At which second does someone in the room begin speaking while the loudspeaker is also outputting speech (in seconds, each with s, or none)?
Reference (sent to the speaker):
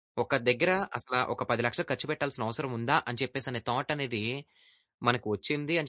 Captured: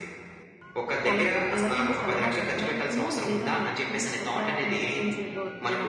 1.1 s